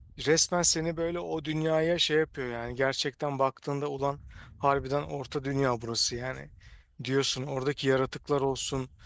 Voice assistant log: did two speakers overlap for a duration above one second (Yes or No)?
No